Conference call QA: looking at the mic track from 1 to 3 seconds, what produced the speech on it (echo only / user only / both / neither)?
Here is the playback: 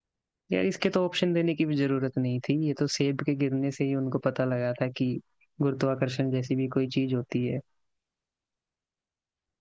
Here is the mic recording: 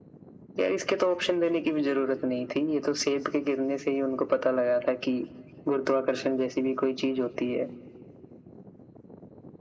echo only